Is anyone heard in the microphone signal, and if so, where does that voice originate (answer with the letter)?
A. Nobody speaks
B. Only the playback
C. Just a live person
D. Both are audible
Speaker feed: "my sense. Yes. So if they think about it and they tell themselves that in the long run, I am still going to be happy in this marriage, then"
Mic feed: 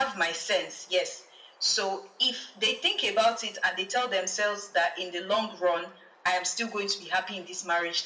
B